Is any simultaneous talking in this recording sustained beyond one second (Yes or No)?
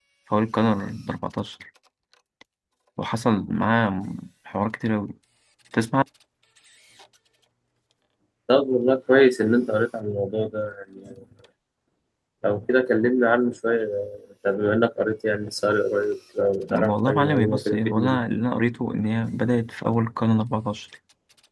Yes